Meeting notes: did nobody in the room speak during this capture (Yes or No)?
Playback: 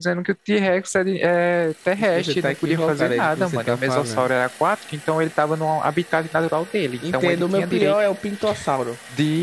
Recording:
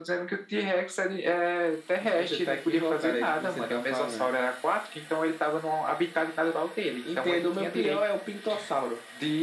Yes